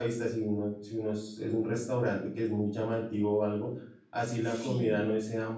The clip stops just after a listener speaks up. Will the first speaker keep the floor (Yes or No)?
Yes